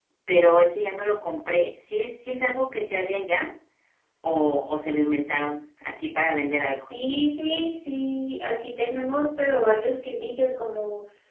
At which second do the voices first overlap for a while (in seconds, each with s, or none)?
none